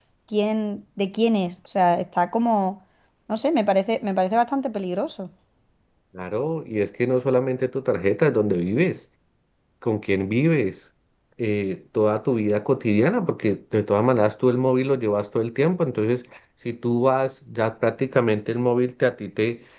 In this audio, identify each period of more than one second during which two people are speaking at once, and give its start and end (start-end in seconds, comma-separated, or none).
none